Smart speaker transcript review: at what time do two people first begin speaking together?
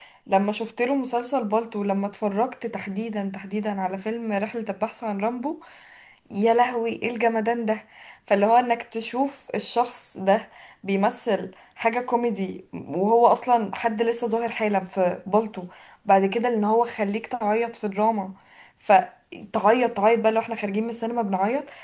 none

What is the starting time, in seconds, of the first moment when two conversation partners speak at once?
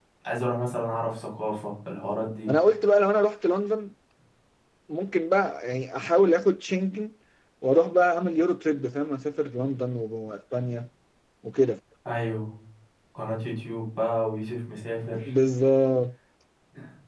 none

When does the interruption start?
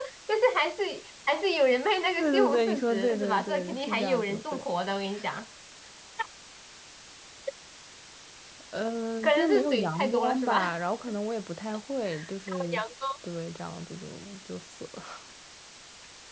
2.2 s

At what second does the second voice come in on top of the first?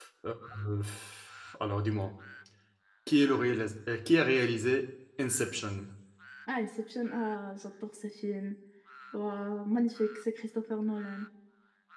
none

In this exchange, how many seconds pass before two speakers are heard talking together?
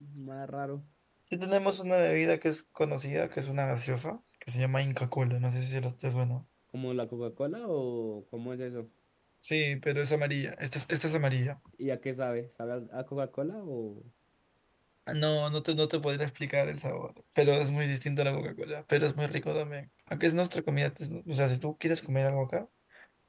none

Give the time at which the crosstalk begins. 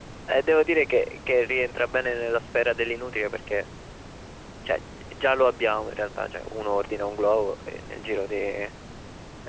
none

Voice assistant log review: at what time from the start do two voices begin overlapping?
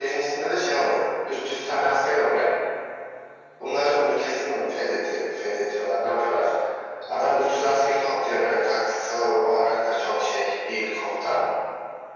none

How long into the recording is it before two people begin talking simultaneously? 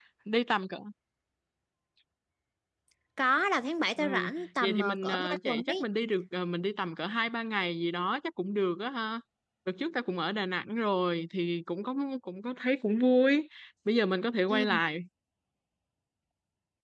4.0 s

